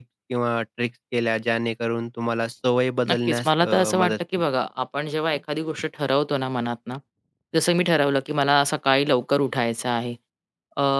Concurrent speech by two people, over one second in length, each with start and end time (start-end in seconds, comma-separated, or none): 3.1-4.5